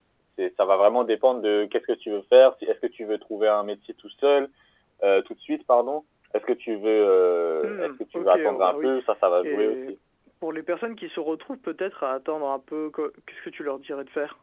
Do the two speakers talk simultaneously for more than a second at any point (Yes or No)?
Yes